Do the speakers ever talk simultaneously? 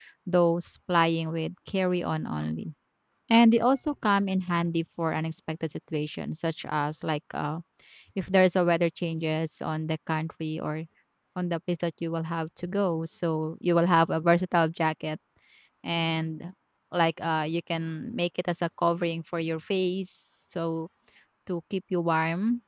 No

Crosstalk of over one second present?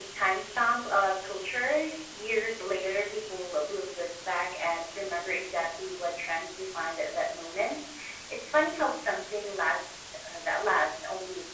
No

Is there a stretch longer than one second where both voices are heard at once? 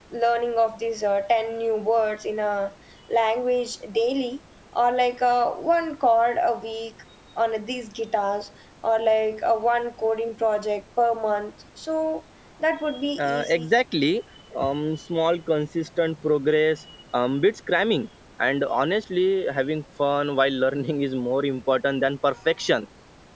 No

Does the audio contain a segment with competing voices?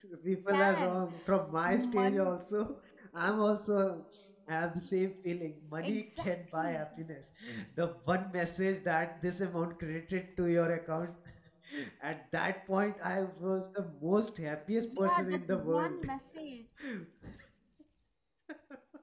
Yes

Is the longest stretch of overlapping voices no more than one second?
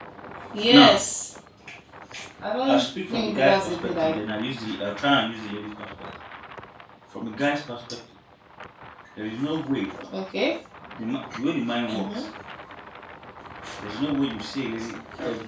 No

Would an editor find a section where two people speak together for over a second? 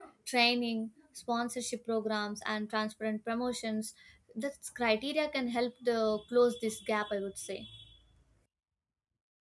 No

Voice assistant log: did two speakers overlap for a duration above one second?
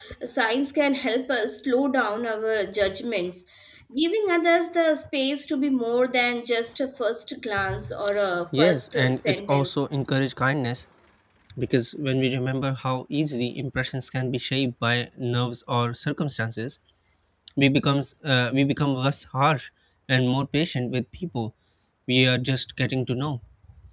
Yes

